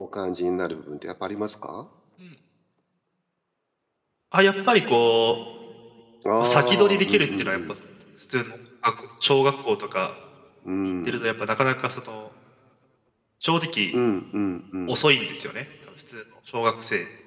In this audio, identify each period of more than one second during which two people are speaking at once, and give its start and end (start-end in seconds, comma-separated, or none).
6.4-7.7